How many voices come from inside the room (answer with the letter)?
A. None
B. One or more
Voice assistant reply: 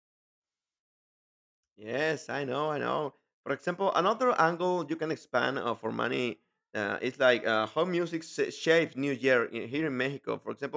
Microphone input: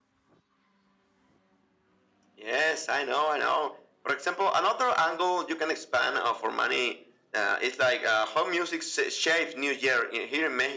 A